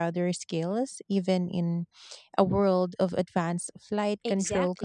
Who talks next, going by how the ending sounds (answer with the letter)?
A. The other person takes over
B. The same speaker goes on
A